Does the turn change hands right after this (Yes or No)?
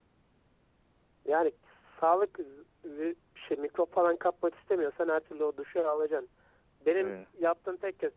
No